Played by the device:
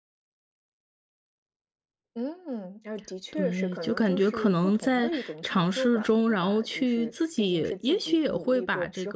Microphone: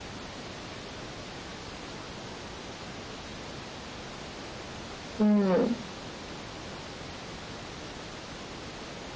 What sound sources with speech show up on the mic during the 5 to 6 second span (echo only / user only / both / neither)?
user only